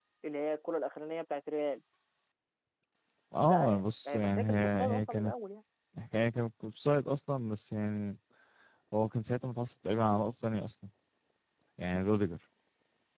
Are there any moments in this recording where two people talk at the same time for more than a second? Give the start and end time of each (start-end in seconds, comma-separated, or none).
3.5-5.3